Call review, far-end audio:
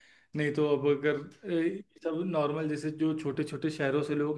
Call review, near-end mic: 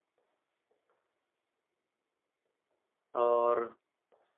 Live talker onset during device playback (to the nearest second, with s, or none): 3 s